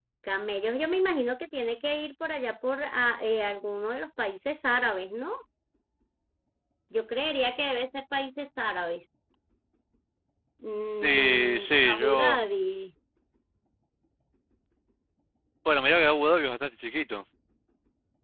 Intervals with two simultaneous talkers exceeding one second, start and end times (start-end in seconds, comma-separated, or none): 11.0-12.4